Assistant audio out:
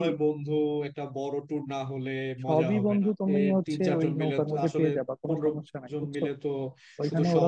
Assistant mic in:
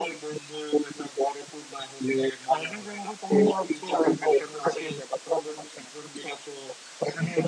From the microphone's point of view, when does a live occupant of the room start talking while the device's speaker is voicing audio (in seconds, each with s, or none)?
none